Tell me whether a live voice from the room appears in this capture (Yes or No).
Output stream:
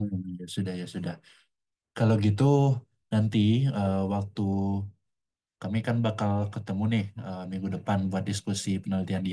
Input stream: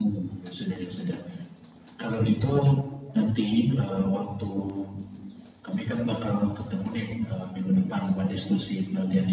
No